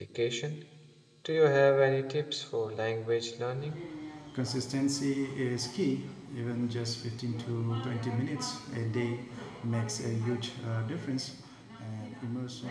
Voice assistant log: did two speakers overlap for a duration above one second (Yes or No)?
No